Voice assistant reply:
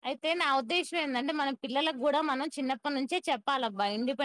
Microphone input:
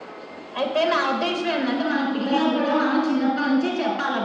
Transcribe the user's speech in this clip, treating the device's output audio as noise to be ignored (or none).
none